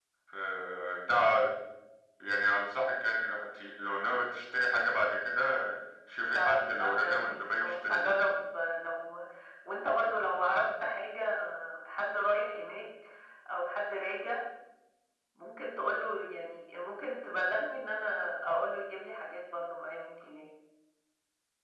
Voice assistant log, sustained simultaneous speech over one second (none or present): present